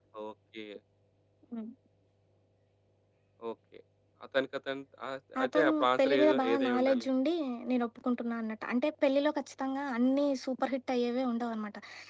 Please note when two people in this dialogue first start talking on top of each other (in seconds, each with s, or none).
5.3 s